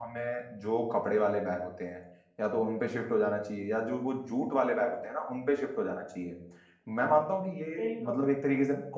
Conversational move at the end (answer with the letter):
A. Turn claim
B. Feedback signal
B